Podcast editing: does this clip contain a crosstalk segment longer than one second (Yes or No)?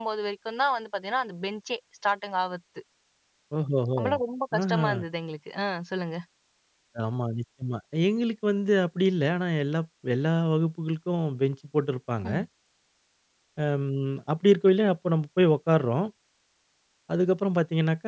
No